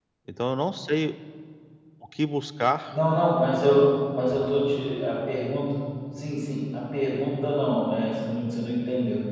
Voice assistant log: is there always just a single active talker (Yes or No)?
Yes